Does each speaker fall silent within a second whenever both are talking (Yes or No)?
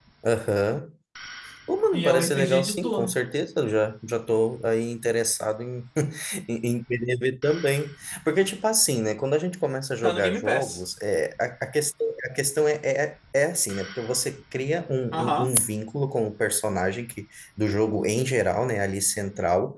No